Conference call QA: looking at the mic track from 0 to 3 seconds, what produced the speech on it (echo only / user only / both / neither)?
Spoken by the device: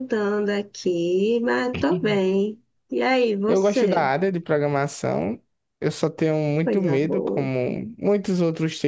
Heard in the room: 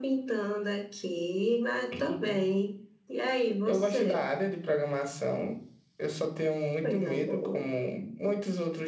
echo only